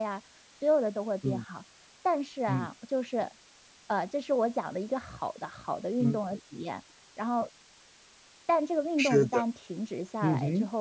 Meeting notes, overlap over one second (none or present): none